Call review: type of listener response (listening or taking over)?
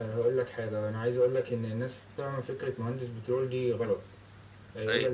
listening